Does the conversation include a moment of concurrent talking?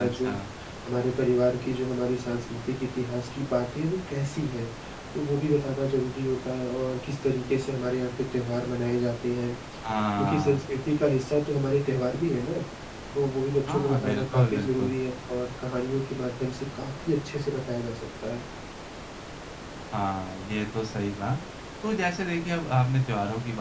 Yes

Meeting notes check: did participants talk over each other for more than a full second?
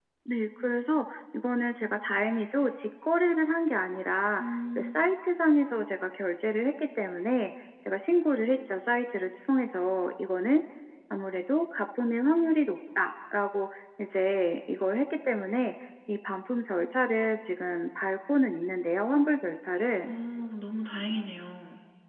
No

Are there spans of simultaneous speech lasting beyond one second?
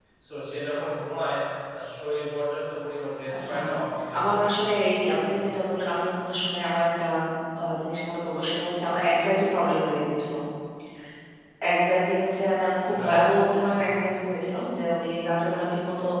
No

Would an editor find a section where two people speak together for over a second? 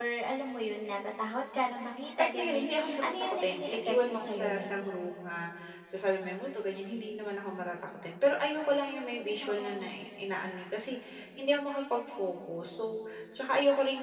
Yes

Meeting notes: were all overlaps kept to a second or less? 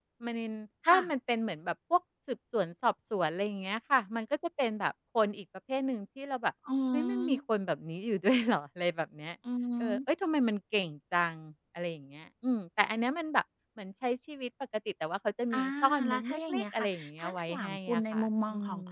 No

